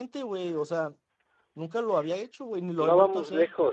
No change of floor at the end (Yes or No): No